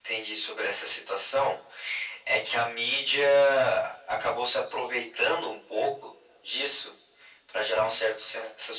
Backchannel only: Yes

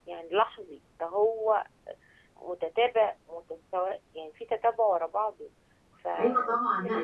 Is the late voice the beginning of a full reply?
Yes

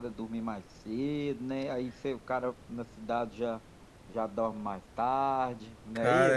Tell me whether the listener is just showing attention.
No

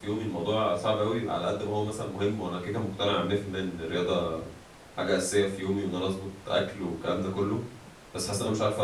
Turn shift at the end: No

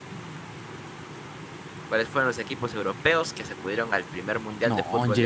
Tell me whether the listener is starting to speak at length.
Yes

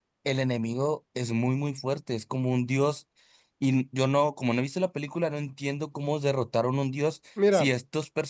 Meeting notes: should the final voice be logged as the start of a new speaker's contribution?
No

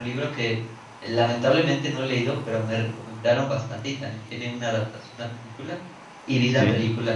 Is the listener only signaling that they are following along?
Yes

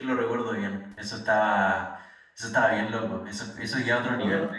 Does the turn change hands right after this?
Yes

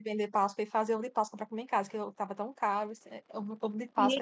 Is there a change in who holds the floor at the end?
Yes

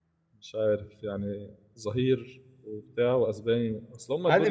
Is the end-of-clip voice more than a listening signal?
Yes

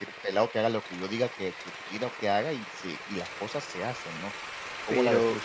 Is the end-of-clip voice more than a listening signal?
Yes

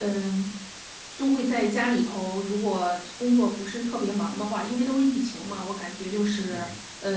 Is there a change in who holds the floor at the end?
No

